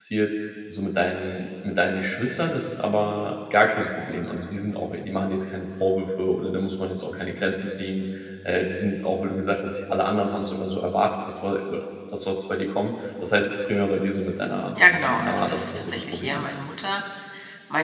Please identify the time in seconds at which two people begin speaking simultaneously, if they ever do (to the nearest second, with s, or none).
15 s